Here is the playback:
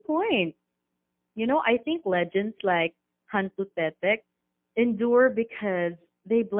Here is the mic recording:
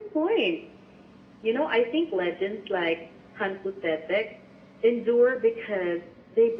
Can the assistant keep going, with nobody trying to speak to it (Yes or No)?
Yes